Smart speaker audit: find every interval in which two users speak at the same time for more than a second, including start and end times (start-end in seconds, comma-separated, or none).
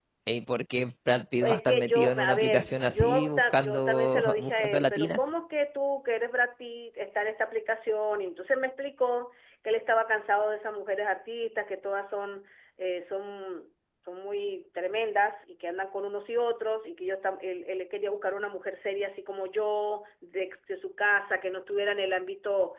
1.4-5.2